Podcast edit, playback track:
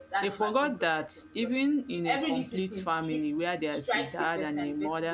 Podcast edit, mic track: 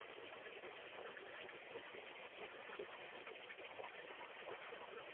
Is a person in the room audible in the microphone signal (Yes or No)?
No